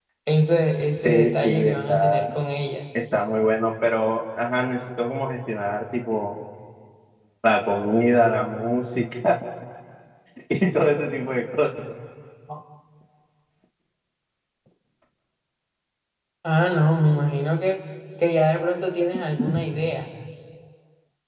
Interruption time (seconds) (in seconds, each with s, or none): 1.0 s